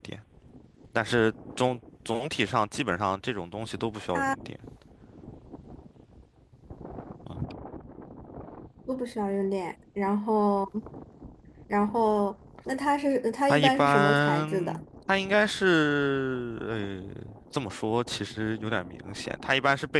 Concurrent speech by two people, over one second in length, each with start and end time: 13.5-14.8

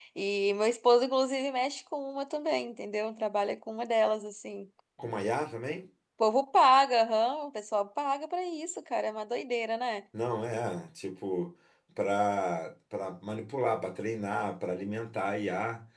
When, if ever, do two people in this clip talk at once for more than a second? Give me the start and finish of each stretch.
none

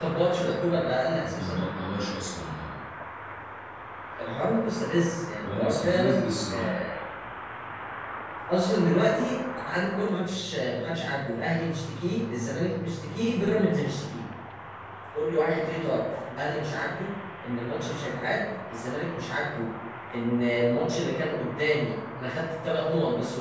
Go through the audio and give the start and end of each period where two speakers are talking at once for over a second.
5.4-6.8

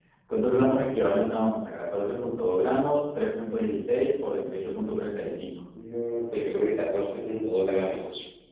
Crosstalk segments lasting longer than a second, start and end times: none

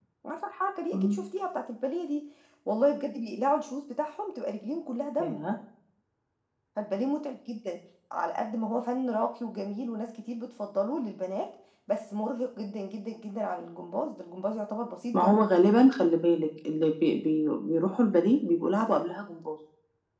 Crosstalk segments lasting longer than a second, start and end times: none

